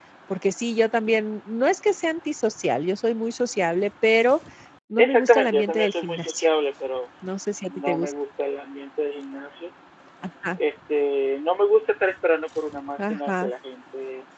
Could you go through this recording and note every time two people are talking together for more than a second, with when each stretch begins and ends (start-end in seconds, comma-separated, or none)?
5.0-6.5